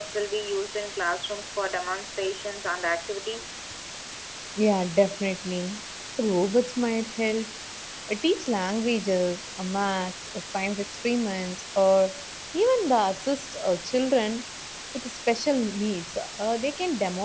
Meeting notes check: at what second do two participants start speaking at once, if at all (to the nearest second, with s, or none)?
none